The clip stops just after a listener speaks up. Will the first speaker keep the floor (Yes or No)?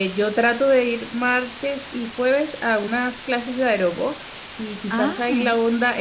Yes